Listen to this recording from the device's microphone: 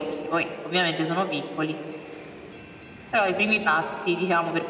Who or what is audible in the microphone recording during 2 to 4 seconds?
echo only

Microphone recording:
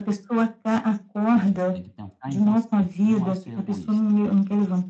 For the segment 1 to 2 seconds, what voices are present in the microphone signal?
both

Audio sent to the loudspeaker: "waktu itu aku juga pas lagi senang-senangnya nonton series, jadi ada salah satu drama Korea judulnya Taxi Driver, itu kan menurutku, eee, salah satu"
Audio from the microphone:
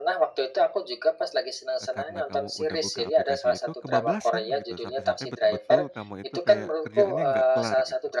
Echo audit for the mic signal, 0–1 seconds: echo only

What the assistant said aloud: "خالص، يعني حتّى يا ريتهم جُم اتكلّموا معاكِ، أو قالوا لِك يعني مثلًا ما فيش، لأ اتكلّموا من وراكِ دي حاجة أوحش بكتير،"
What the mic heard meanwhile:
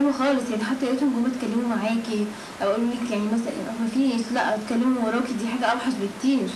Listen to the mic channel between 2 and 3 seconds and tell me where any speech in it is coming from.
echo only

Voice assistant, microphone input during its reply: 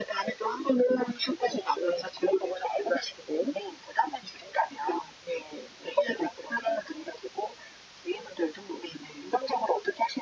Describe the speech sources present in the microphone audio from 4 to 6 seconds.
echo only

